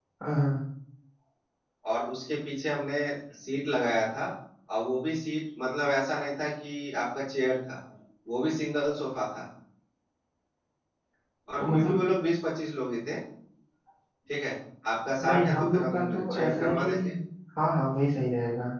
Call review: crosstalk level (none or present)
present